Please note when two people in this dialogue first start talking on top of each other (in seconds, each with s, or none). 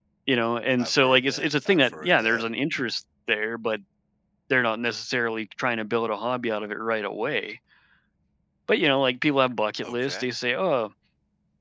0.8 s